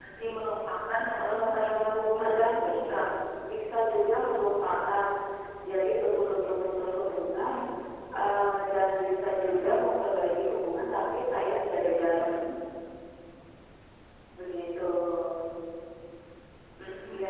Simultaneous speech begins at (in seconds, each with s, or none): 1.2 s